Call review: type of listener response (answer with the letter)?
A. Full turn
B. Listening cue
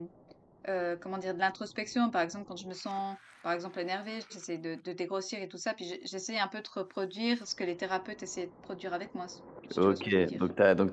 A